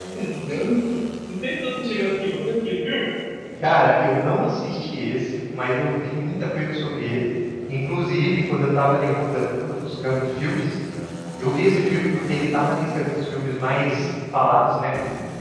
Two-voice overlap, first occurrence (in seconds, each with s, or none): none